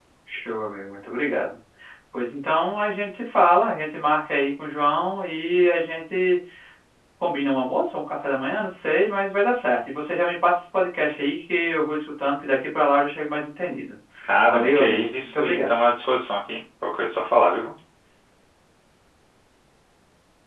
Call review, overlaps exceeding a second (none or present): present